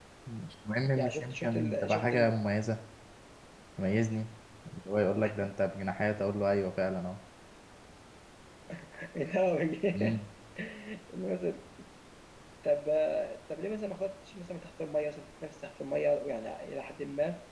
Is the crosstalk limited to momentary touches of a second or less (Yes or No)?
No